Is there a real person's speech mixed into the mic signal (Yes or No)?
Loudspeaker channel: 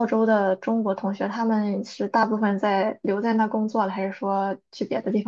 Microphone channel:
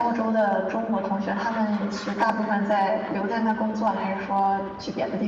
No